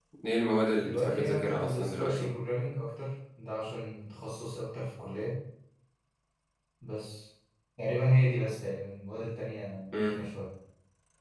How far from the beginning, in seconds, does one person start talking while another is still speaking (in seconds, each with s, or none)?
0.8 s